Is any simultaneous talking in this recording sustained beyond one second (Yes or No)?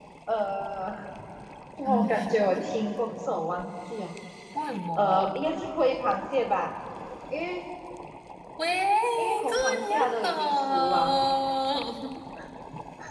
Yes